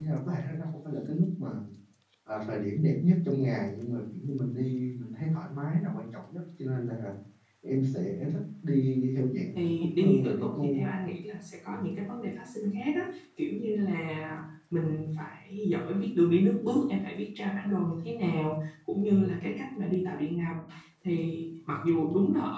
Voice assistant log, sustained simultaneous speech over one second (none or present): present